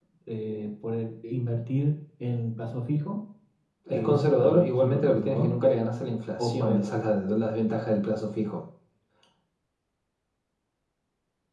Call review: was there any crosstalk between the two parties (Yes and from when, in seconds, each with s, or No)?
Yes, from 3.9 s